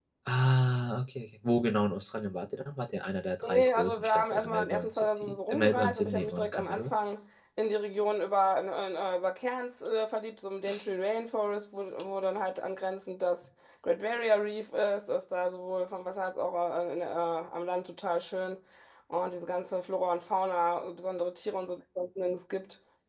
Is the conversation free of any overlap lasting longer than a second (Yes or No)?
No